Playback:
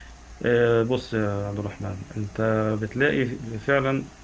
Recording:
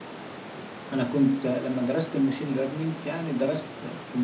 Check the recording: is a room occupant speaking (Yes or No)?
Yes